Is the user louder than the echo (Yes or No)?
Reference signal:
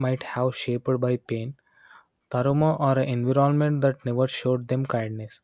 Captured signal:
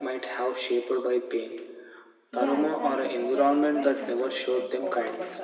No